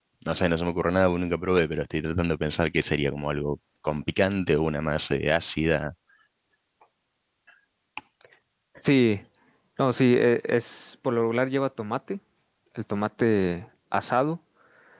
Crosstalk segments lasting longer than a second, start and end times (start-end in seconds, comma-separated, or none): none